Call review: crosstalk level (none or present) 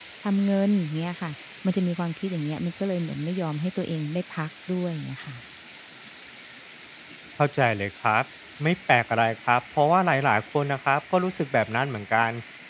none